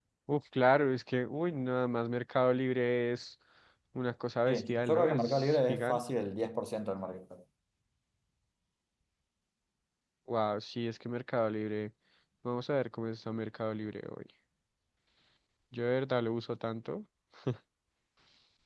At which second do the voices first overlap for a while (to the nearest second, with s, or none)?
4 s